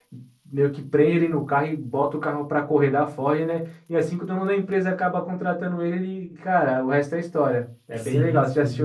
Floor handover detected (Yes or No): Yes